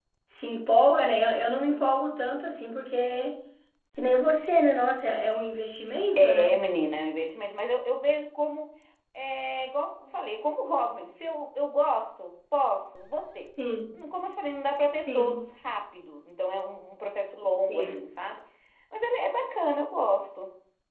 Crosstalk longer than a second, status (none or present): none